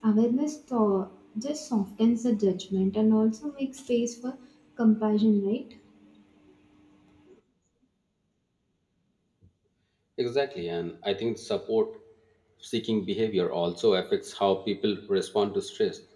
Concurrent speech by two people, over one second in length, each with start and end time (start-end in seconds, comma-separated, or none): none